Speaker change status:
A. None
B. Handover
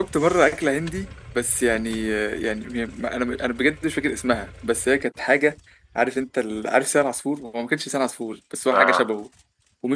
A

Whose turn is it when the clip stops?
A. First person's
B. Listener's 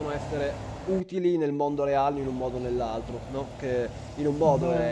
A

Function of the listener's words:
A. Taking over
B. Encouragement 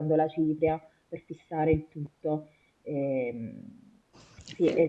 B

